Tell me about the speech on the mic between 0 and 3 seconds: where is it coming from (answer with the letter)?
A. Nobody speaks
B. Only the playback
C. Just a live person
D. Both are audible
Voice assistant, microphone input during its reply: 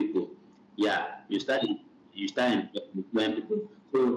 B